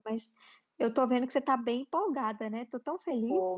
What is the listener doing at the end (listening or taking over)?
taking over